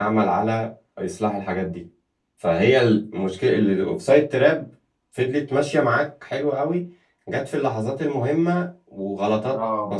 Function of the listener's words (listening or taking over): listening